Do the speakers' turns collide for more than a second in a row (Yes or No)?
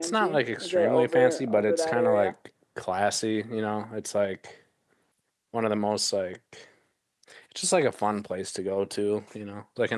Yes